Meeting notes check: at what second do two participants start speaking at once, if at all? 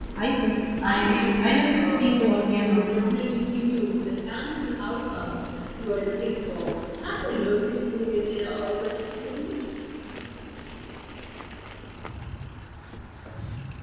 0.8 s

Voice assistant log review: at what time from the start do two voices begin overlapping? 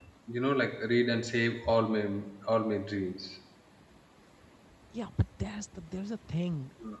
none

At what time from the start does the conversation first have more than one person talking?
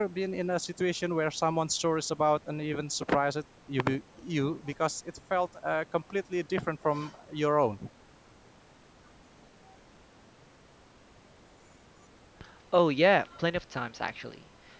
none

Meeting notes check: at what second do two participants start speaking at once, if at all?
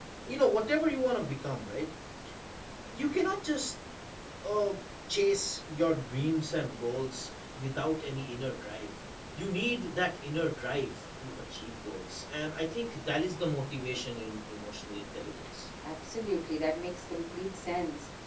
none

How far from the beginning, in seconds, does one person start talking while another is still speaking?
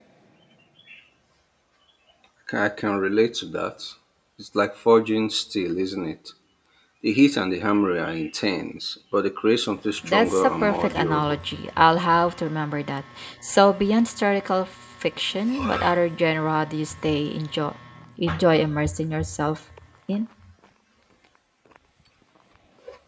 10.1 s

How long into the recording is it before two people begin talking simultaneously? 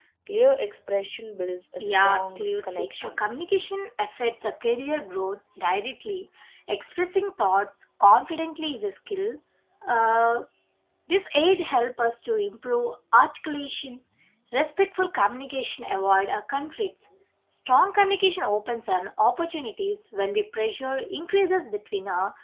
1.8 s

